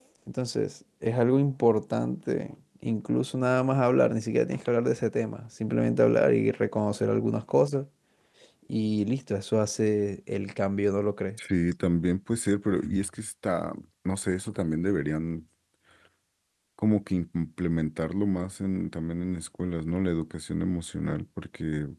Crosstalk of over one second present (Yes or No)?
No